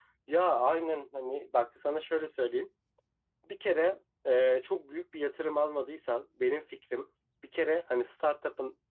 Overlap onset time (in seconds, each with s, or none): none